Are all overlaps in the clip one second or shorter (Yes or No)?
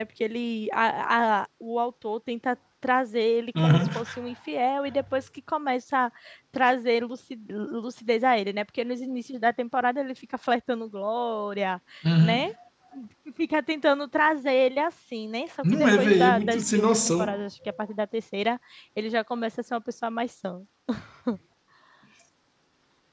No